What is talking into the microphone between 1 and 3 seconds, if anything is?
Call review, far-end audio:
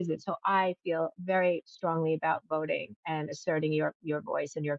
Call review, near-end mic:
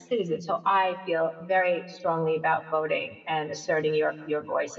echo only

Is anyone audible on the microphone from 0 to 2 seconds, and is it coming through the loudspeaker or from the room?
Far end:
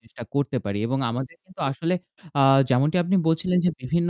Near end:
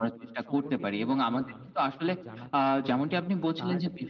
both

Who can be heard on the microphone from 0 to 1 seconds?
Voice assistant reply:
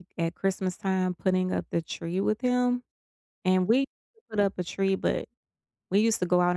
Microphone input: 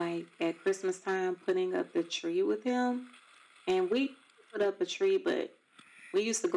echo only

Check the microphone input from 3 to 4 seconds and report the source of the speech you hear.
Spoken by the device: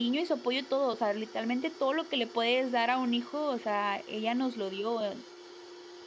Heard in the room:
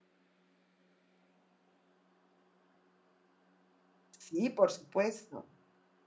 neither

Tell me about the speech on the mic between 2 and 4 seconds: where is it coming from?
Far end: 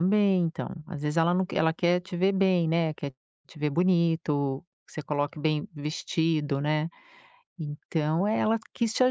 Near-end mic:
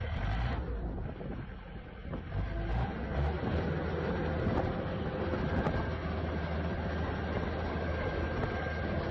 neither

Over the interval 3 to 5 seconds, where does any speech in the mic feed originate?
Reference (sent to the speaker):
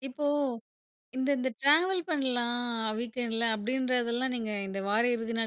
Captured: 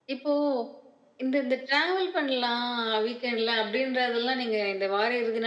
echo only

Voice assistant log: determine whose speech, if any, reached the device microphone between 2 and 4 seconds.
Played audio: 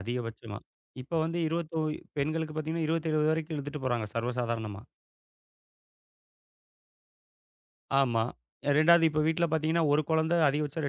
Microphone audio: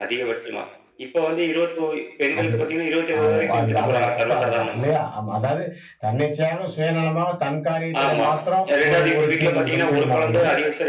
both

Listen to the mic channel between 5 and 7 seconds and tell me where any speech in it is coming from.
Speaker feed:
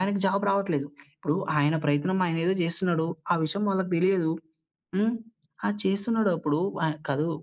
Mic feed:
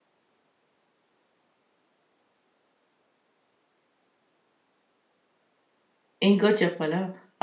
user only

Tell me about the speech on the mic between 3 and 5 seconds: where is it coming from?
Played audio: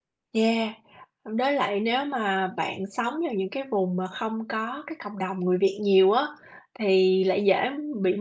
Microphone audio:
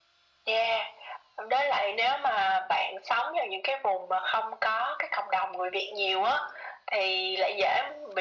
echo only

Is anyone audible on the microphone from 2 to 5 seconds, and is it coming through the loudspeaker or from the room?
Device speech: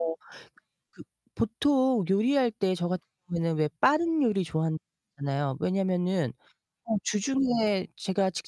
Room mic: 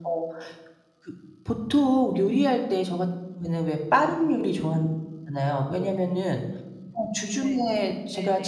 echo only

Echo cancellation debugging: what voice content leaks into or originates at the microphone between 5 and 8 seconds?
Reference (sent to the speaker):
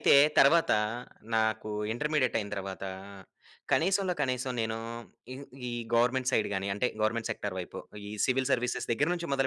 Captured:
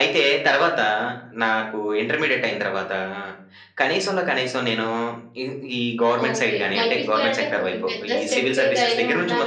both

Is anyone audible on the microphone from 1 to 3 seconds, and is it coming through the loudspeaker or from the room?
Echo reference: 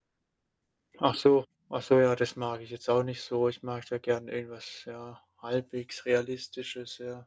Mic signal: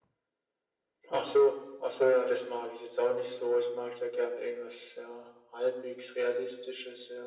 echo only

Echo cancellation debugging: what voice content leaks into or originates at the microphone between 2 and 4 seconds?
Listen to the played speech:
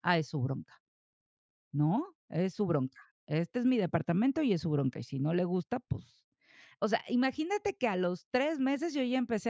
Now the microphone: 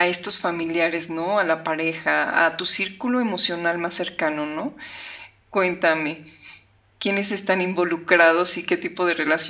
user only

